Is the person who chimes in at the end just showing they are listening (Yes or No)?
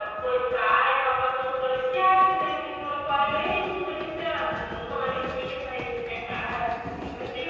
No